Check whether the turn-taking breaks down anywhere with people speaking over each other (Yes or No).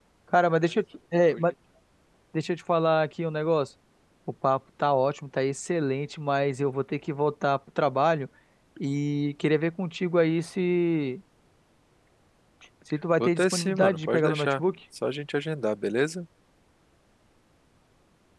Yes